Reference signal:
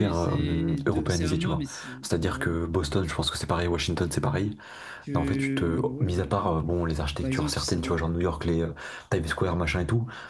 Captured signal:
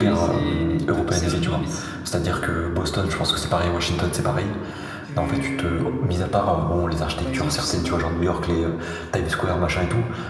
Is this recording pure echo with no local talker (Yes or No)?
Yes